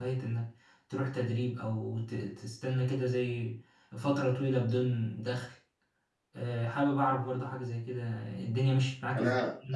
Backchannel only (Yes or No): No